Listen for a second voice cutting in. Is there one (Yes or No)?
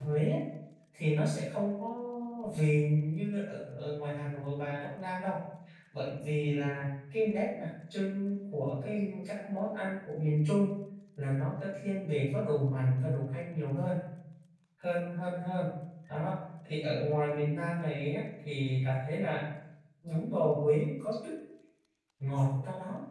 No